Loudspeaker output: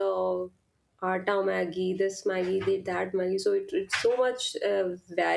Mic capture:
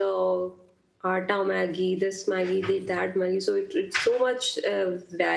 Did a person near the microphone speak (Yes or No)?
No